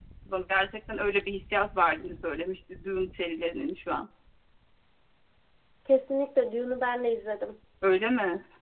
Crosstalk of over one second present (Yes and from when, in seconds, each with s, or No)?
No